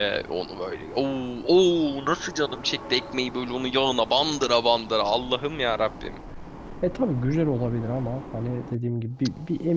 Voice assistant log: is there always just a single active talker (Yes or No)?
Yes